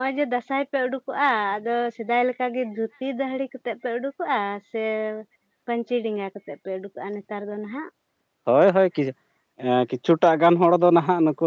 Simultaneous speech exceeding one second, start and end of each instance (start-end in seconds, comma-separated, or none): none